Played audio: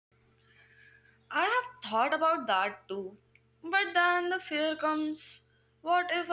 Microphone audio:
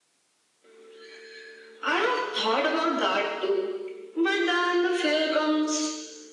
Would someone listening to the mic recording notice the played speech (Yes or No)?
Yes